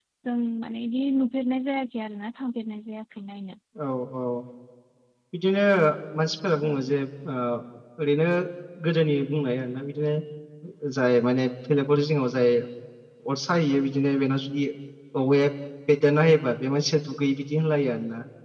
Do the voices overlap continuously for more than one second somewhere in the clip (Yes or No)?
No